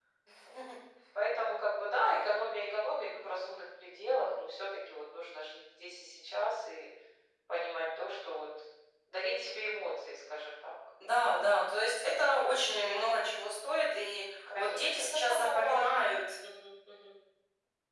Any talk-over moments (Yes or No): Yes